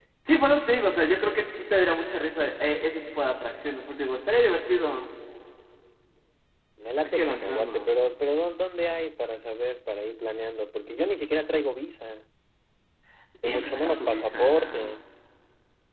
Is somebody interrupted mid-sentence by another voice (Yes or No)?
Yes